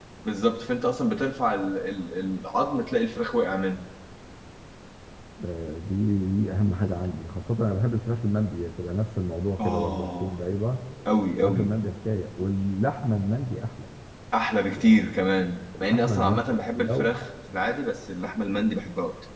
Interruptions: present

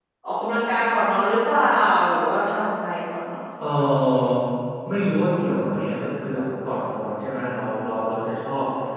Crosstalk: none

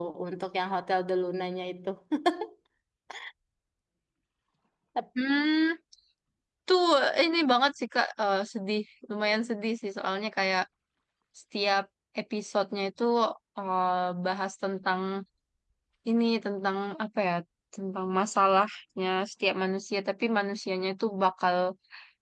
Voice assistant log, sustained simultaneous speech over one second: none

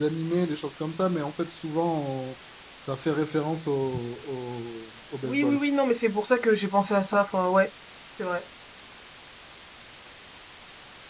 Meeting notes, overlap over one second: none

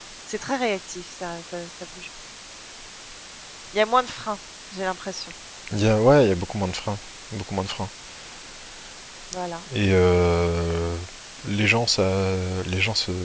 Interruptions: none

